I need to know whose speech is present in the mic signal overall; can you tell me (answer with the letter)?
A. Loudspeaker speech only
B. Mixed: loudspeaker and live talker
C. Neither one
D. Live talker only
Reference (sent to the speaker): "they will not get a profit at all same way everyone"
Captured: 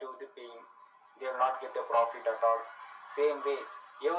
A